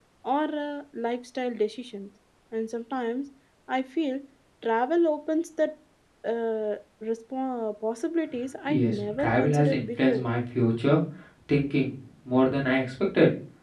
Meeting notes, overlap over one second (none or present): present